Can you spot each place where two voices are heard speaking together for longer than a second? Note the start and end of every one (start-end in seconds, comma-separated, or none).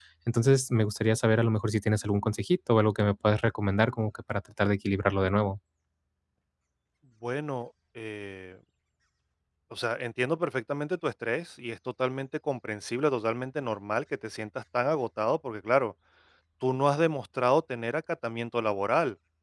none